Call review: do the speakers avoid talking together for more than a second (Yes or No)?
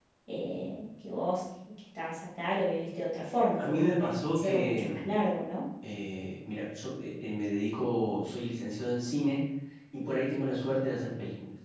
No